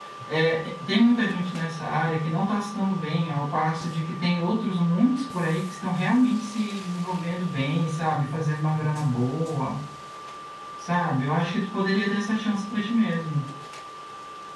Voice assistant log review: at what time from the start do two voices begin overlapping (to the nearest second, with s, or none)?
none